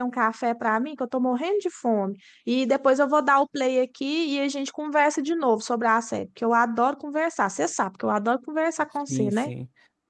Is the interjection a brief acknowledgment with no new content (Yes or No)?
No